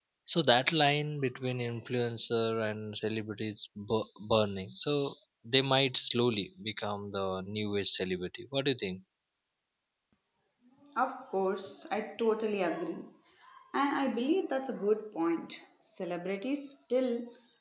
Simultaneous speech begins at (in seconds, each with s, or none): none